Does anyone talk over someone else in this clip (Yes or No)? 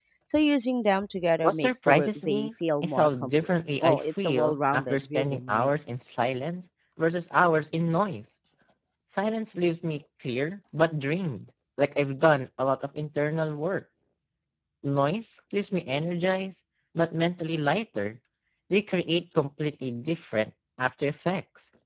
Yes